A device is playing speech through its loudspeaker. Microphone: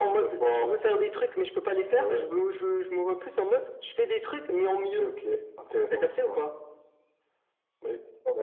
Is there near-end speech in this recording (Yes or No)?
No